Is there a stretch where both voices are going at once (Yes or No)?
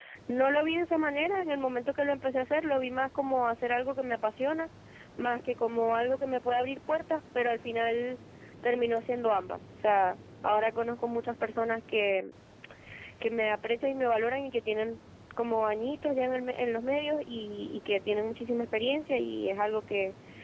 No